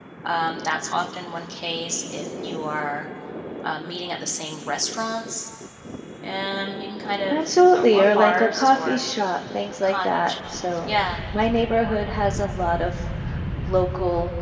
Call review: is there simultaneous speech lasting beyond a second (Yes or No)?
Yes